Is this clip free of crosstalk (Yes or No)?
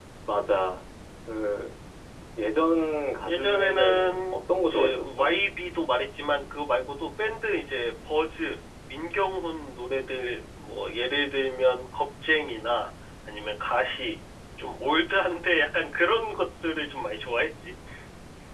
No